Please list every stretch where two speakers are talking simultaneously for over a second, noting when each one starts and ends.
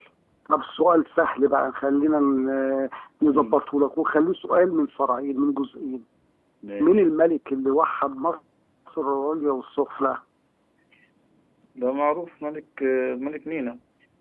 none

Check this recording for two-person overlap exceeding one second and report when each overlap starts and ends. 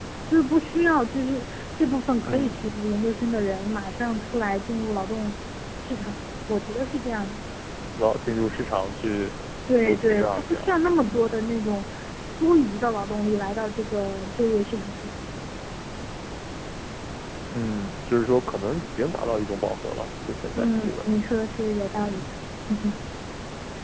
9.8-11.4

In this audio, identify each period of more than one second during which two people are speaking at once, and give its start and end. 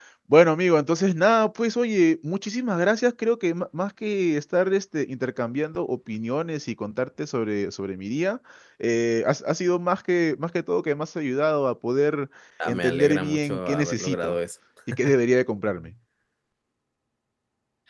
12.7-14.4

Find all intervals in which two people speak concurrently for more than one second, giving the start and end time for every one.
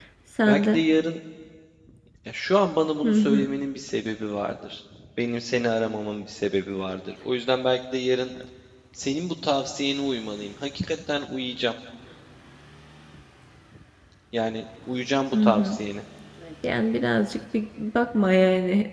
none

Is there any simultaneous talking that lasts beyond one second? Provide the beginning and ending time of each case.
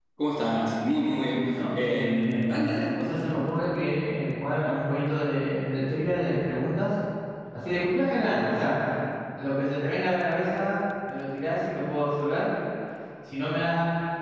1.3-3.0

